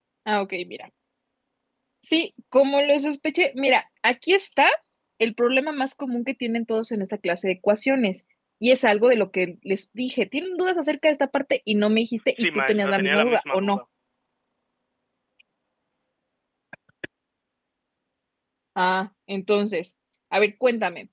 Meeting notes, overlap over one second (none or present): present